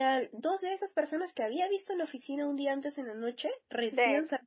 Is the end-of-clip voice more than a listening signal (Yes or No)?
No